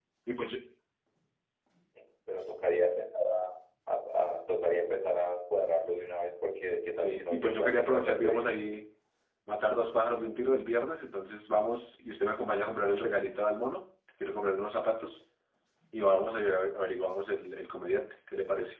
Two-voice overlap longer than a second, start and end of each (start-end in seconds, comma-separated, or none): 7.0-8.5